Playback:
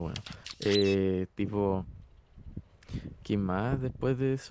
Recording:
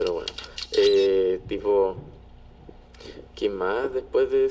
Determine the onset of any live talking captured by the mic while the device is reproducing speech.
none

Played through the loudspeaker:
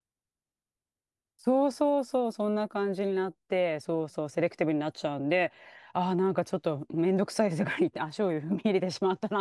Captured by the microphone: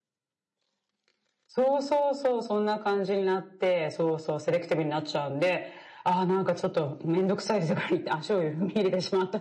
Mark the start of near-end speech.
none

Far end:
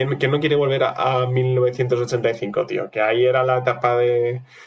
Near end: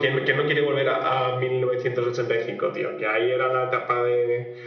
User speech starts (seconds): none

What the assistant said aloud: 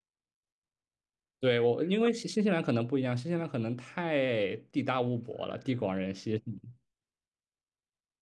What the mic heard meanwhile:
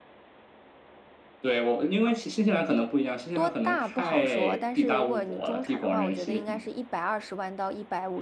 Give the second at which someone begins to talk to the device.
3.3 s

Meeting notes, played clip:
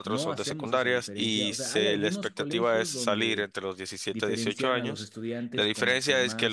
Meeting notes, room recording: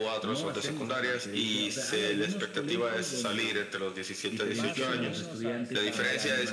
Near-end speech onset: 4.5 s

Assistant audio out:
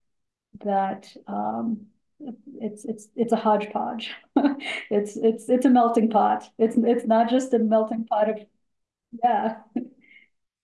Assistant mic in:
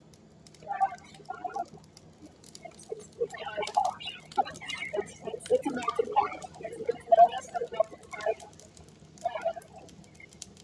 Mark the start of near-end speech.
none

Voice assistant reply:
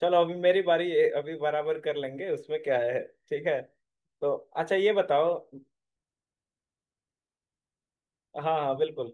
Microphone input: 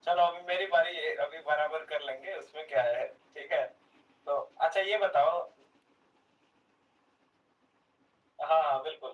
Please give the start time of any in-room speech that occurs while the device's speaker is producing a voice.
none

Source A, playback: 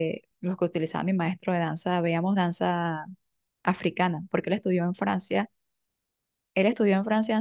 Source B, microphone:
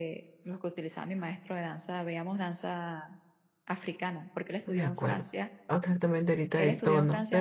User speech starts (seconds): 4.6 s

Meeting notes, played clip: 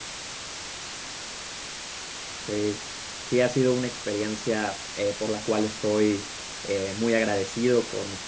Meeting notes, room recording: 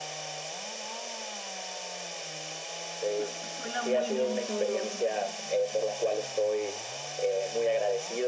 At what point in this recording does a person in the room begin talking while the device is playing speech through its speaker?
3.2 s

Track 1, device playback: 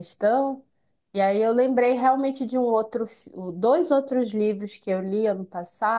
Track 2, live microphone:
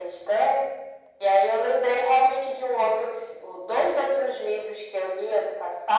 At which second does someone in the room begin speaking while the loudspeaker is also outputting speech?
none

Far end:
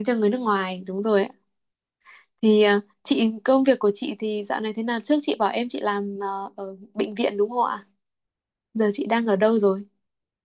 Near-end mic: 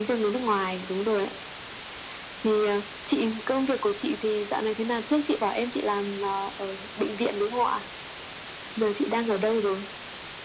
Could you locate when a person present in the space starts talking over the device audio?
none

